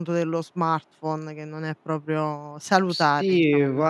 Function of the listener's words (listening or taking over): taking over